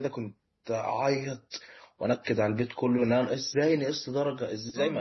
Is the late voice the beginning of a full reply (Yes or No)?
Yes